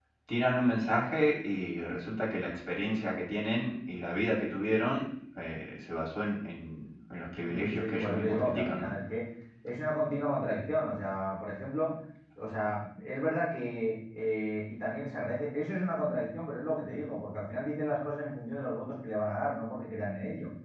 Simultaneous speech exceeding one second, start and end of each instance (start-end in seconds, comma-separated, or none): 7.4-8.9